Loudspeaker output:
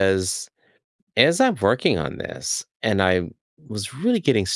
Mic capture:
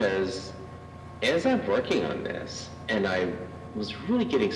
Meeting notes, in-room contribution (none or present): none